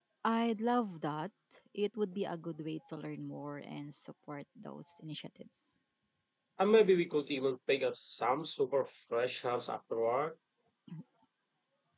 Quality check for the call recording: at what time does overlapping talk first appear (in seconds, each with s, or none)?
none